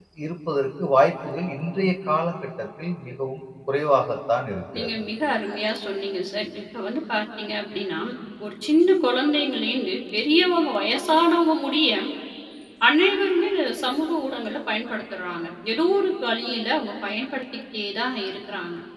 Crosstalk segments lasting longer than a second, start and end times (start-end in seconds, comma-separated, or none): none